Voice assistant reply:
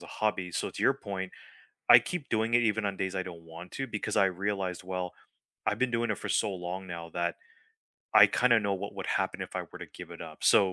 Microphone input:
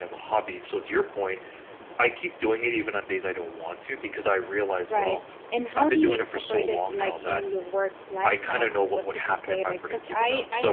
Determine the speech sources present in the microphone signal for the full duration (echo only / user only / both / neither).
both